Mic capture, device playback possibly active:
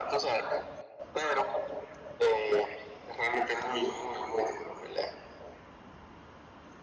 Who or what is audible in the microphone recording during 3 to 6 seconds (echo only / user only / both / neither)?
echo only